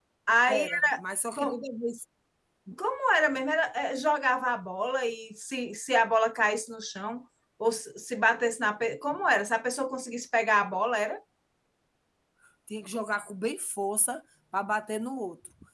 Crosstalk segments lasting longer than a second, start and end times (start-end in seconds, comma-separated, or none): none